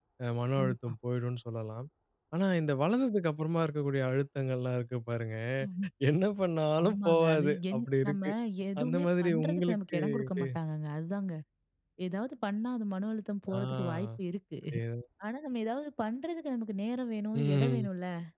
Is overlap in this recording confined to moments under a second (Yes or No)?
No